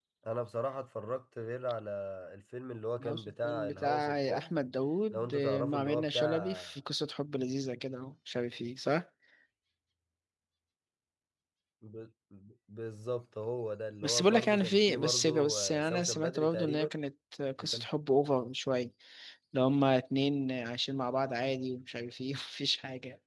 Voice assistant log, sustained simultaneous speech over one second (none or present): present